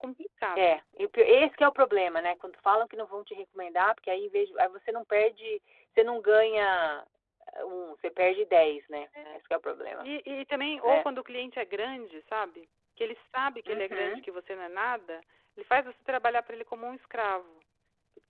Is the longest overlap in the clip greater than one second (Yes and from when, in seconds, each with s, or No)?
No